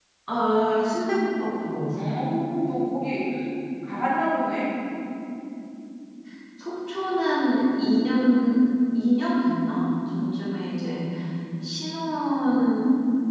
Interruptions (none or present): none